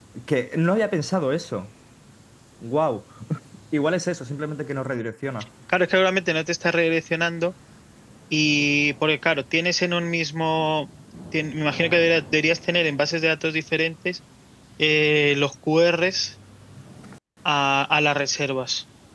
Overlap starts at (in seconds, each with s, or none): none